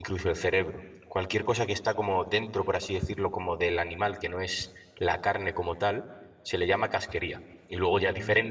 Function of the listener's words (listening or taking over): listening